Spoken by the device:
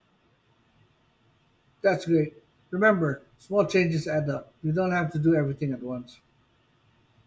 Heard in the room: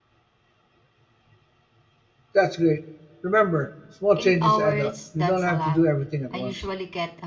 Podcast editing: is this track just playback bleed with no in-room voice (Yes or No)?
No